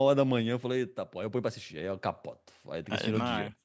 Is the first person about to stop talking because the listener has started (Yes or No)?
Yes